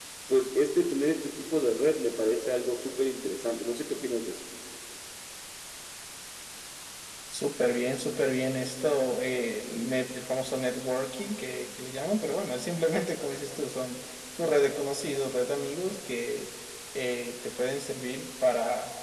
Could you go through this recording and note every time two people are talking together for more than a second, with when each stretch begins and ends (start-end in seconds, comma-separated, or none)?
none